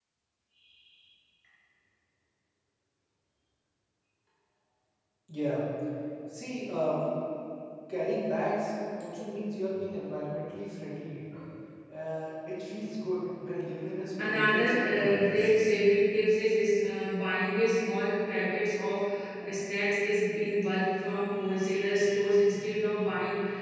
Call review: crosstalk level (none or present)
present